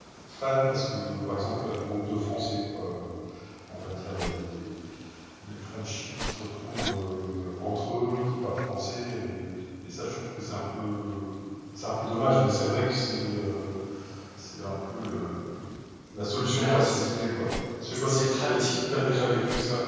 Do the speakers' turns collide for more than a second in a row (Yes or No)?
Yes